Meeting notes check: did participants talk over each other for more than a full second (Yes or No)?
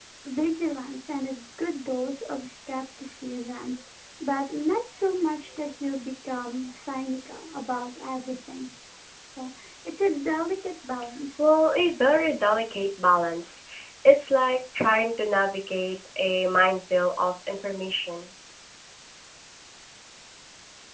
No